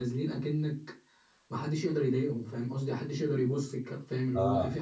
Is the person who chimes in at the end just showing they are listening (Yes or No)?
No